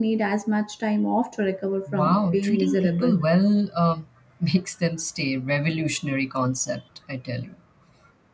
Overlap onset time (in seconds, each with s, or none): 1.9 s